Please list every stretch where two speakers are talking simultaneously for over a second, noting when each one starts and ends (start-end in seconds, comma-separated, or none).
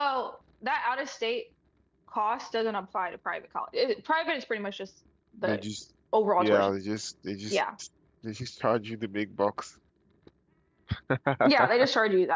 none